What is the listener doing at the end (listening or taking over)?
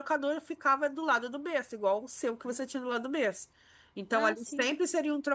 listening